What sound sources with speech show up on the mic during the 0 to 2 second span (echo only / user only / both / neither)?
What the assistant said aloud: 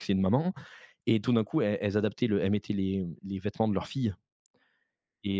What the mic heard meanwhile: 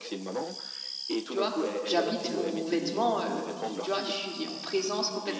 both